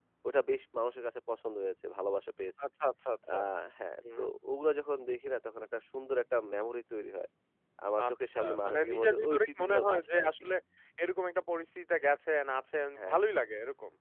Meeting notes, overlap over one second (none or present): present